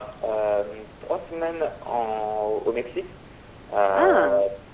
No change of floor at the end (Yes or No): Yes